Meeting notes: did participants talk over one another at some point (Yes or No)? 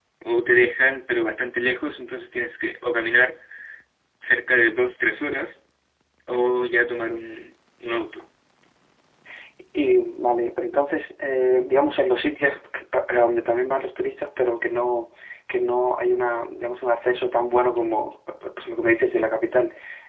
No